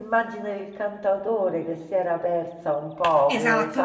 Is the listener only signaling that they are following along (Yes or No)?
No